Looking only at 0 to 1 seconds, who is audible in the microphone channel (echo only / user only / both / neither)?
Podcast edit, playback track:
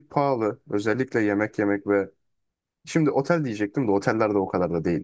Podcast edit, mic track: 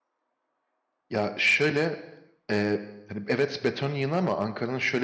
neither